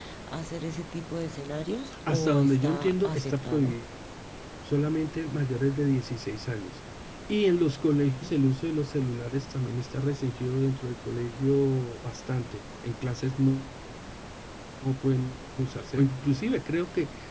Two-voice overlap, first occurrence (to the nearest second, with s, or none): 2 s